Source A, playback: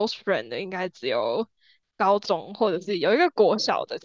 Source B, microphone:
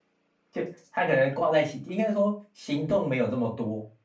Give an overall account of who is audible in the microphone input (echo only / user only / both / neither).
user only